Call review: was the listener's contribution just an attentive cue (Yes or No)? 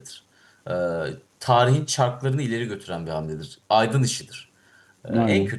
Yes